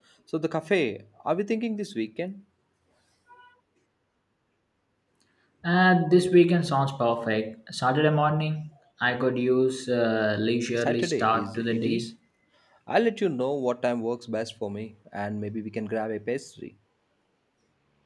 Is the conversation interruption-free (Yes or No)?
No